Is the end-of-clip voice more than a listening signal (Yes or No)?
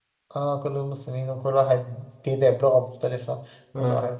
No